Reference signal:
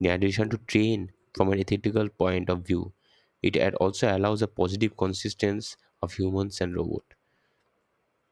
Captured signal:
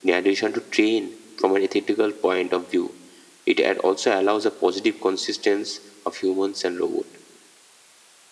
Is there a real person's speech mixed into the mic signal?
No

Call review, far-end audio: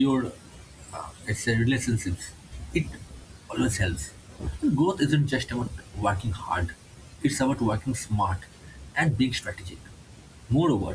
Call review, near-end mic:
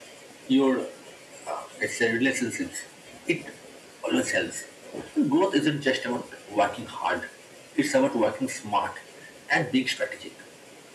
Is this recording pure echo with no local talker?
Yes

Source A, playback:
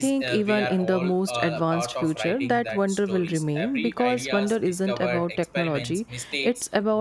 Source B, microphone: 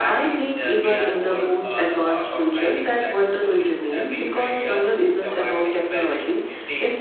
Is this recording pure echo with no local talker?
Yes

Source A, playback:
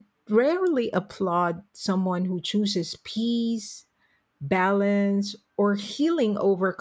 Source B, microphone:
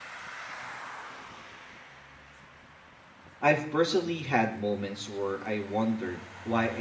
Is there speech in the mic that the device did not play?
Yes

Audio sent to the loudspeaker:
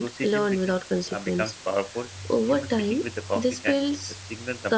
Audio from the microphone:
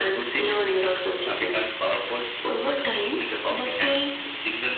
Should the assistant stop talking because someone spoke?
No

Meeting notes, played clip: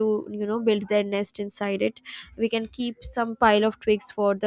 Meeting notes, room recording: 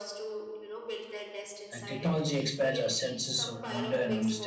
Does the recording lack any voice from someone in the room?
No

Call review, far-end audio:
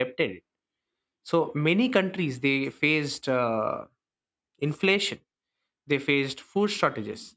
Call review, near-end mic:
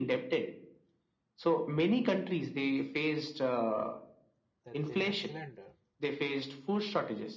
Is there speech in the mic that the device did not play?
Yes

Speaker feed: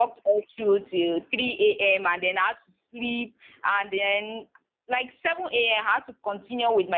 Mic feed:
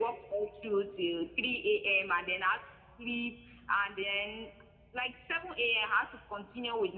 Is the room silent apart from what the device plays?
Yes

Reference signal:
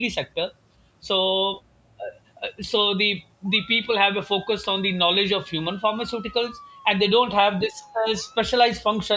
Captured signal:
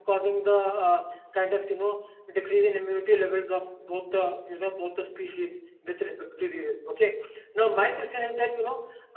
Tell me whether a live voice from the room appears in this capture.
Yes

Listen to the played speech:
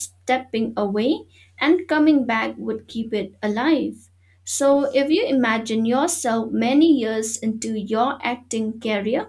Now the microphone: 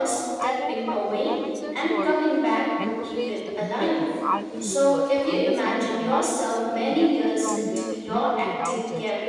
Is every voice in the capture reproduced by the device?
No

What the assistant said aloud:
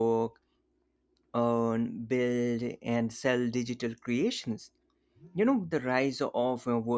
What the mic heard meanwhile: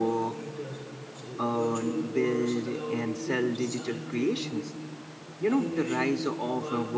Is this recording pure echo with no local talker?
No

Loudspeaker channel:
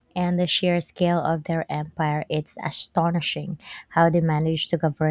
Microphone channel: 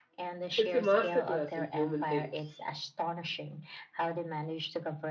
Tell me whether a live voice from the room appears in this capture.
Yes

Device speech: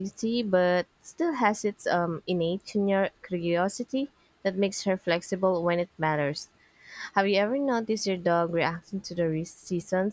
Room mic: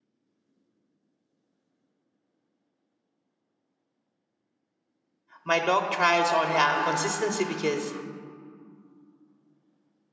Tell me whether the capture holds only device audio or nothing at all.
No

